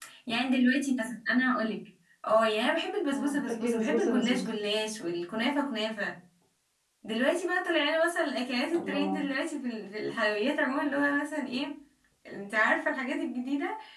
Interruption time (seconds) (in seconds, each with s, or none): 3.1 s